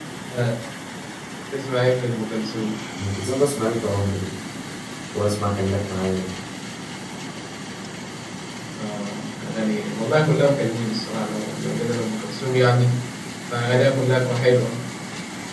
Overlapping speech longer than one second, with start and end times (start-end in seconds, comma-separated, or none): none